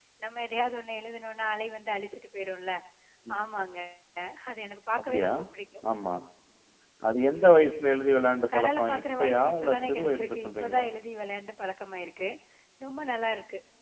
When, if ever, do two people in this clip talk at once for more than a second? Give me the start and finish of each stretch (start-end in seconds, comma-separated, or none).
8.5-10.9